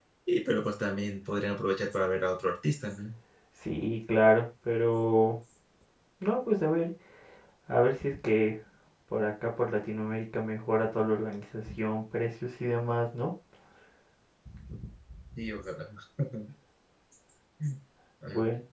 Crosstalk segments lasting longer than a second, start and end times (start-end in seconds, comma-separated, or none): none